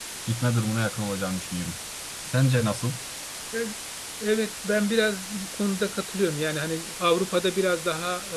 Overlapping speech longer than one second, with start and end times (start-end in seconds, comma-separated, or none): none